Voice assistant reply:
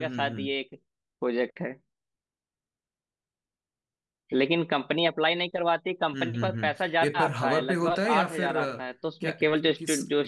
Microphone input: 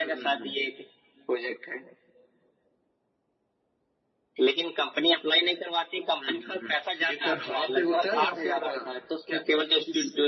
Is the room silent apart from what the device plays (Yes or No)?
Yes